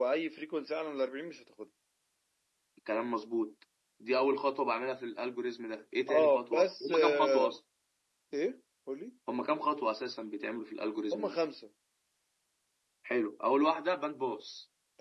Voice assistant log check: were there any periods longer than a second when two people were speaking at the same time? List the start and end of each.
6.1-7.5

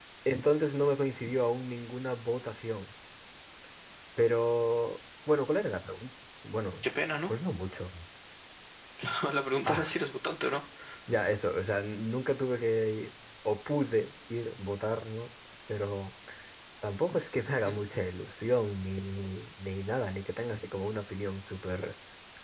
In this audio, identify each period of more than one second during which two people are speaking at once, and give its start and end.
none

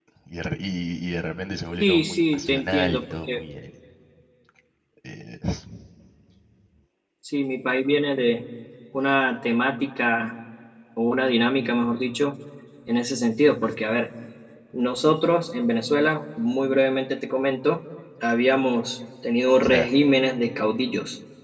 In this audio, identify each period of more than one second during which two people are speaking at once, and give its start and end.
1.8-3.4

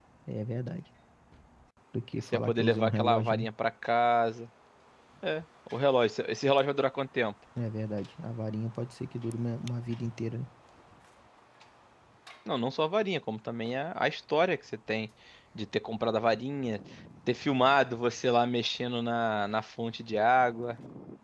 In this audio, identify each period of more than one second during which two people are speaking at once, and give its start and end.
2.2-3.5

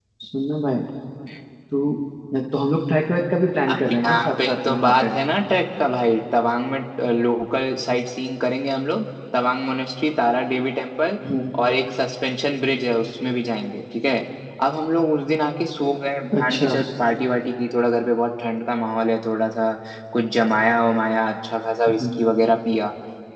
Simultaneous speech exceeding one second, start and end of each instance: 3.7-5.1

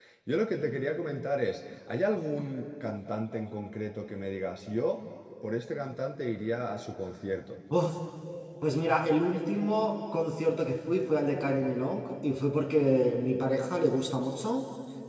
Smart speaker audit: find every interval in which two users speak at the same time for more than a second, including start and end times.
none

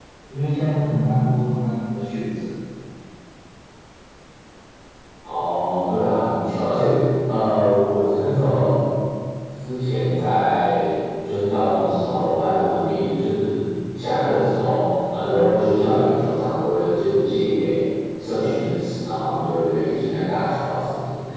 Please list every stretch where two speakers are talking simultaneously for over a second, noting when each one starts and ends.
none

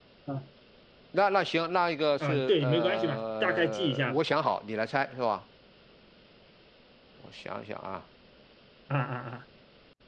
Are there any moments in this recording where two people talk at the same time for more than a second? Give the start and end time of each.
2.2-4.2

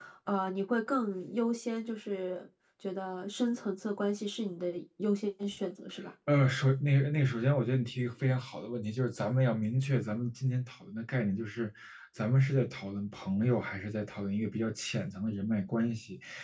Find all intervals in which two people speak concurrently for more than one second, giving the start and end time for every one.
none

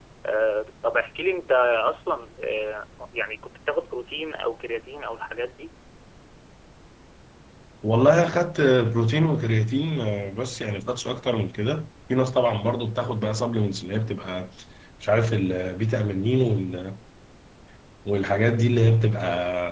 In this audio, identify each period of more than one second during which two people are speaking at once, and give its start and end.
none

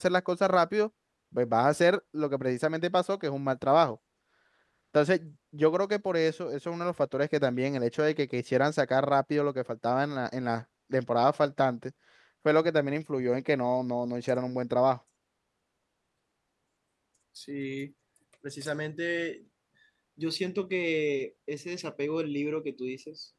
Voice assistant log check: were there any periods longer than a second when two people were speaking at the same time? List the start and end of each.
none

